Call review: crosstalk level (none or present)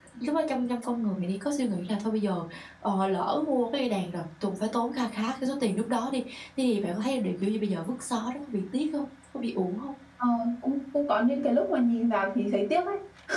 none